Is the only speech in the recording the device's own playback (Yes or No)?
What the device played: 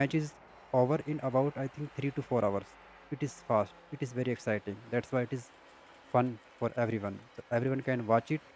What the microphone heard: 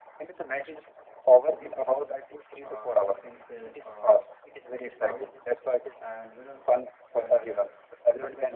No